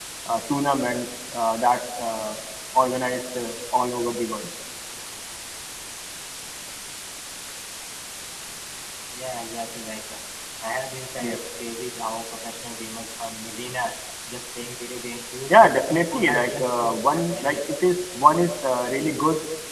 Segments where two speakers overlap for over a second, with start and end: 15.5-17.6

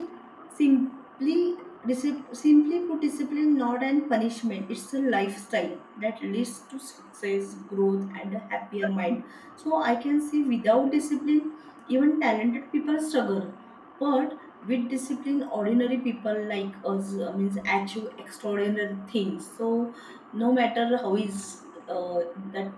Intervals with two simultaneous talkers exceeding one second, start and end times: none

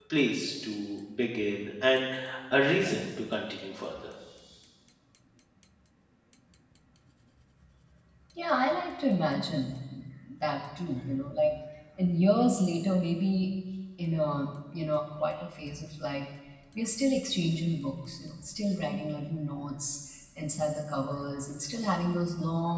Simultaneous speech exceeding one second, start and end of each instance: none

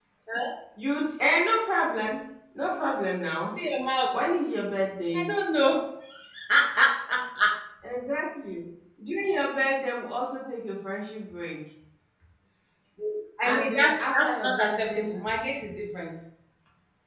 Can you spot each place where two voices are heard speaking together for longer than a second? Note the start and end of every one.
13.4-15.1

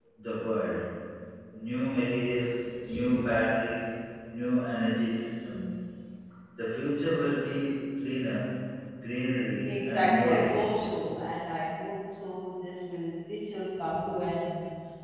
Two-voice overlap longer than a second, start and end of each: 9.6-10.9

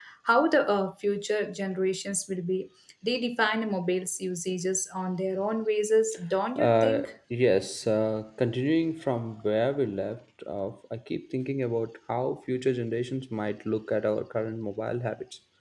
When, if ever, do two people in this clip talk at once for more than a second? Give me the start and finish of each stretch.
none

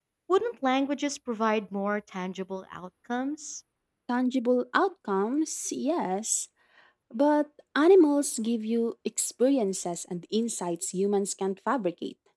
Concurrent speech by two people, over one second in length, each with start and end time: none

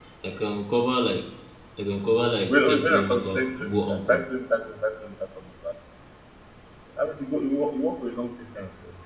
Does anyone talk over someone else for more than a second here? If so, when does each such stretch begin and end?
2.5-4.3

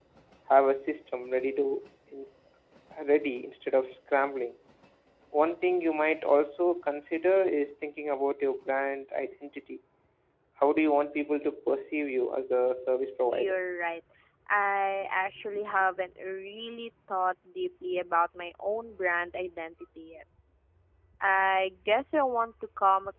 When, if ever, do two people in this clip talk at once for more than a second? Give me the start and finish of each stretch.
none

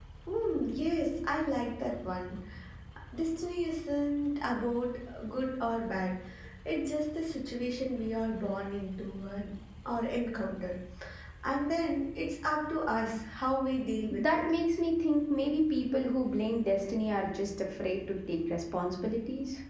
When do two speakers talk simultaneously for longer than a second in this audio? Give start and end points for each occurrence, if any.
none

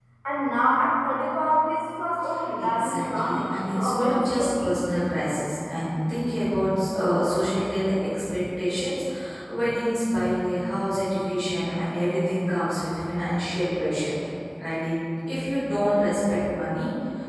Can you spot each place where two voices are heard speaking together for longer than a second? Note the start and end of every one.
2.6-4.8

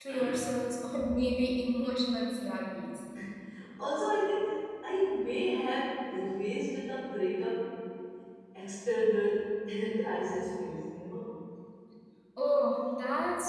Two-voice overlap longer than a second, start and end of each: none

